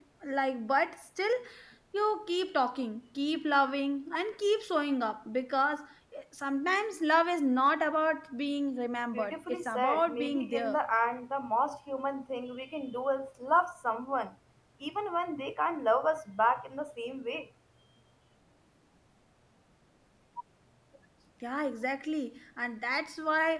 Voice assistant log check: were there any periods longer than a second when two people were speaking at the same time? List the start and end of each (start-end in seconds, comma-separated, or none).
9.1-10.8